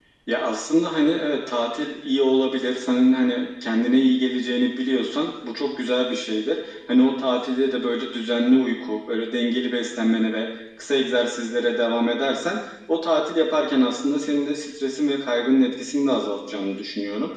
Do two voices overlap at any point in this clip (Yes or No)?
No